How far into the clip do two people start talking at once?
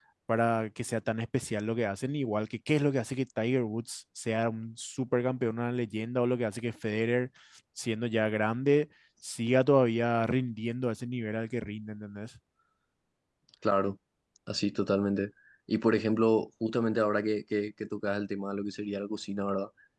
none

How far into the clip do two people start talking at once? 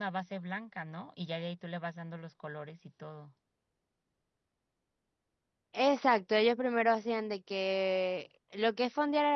none

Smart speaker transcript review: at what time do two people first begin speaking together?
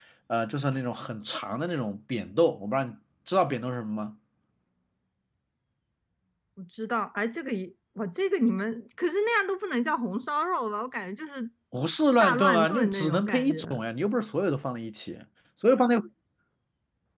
12 s

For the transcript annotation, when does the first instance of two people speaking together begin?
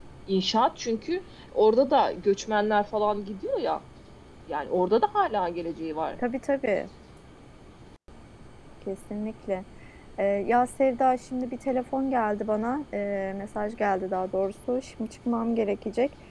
none

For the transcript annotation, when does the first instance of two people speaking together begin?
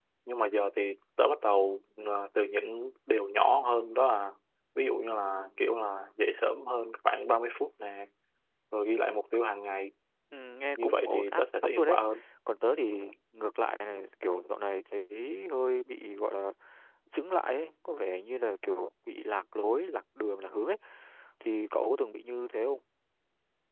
11 s

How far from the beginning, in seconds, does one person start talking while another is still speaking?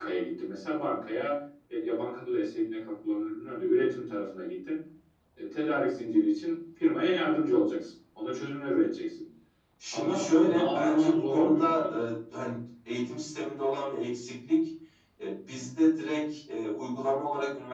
10 s

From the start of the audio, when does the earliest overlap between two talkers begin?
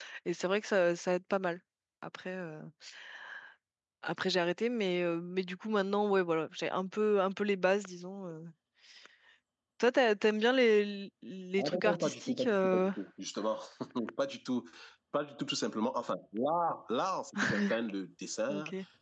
12 s

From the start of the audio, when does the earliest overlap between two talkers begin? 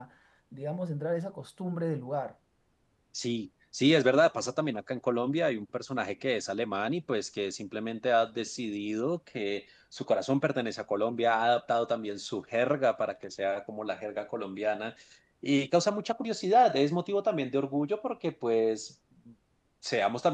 none

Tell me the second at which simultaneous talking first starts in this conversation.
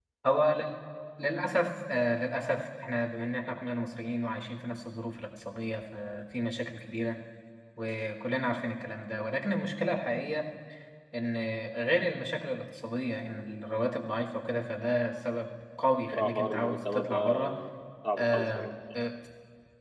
16 s

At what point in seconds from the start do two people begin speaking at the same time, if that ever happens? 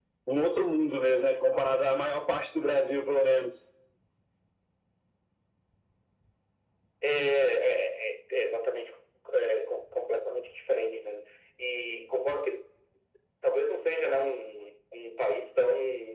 none

